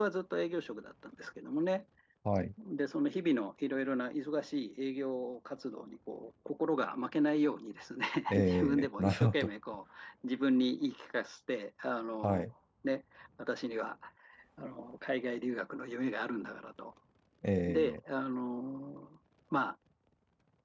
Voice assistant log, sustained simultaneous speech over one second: present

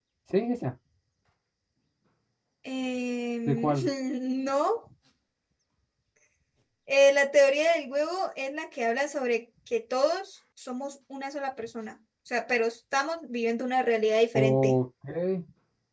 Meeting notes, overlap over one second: none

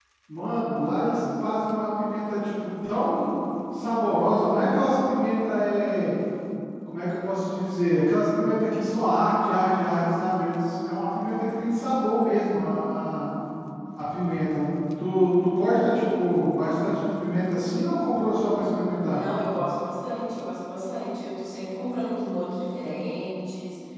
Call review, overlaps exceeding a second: none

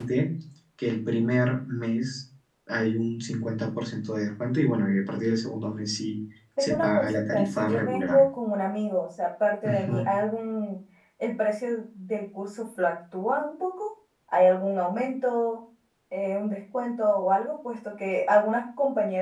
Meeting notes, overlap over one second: present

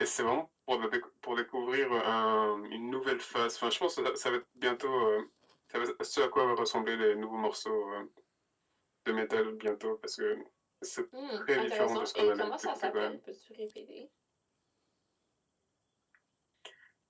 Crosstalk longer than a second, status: present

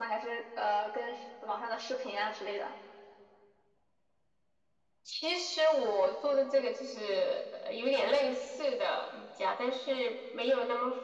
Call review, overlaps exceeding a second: none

